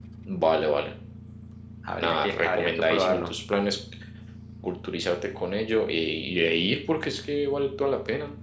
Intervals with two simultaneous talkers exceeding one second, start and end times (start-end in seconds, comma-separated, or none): 2.0-3.3